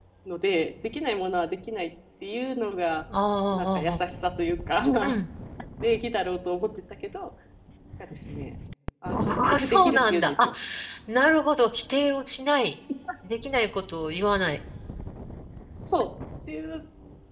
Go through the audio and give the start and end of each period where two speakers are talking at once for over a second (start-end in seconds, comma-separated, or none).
9.1-10.5